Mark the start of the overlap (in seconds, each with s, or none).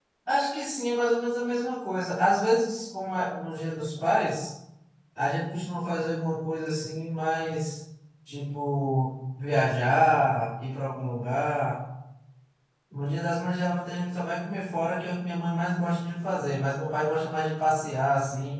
none